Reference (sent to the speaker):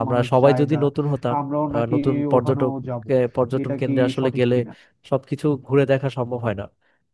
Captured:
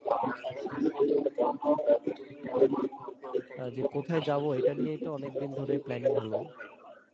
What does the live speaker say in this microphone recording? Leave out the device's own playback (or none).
আহ, যে কোথায় যাব এটা নিয়েই তো অনেকদিন ধরে প্ল্যানিং হলো